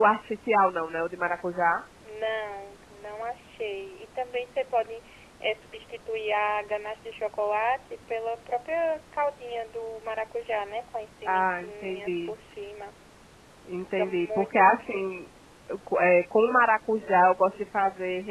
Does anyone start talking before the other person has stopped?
Yes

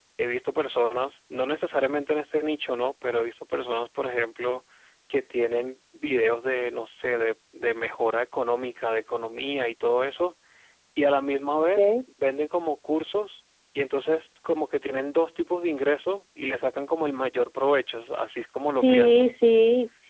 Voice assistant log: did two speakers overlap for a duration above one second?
No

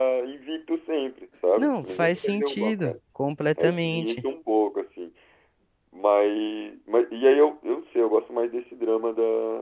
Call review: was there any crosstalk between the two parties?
Yes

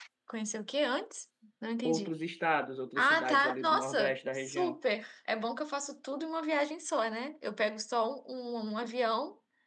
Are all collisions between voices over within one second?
No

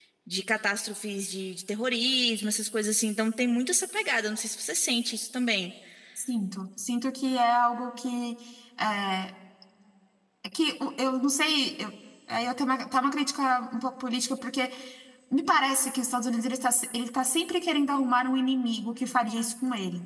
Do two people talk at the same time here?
No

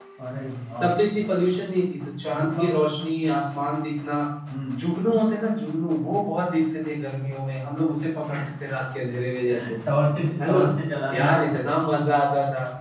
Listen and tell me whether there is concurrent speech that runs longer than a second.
No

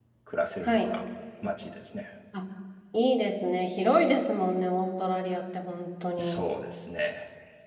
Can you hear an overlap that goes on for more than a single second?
No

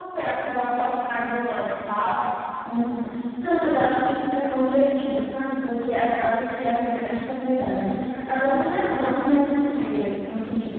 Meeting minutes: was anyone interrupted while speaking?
No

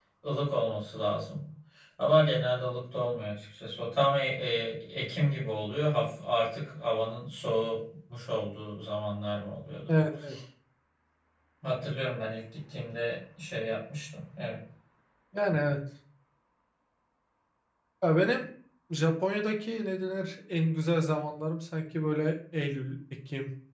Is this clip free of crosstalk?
Yes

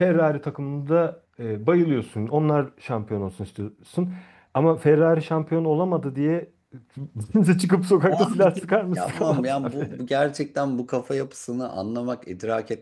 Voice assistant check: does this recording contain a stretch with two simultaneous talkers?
Yes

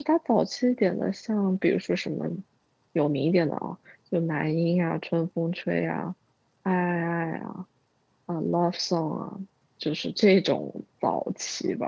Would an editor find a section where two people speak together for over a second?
No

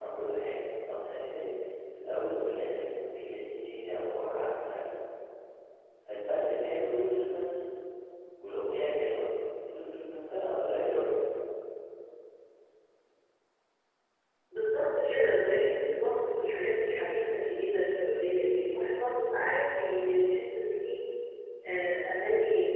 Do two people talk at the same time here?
No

